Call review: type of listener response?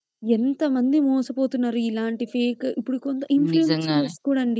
listening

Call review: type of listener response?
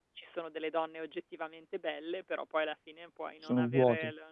listening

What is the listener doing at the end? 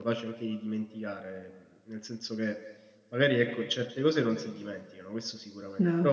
listening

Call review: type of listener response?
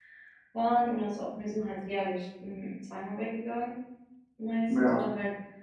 listening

